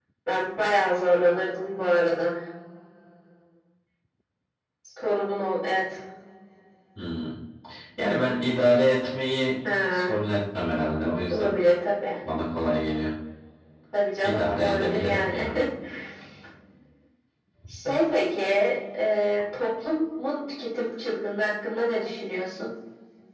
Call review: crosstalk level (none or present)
present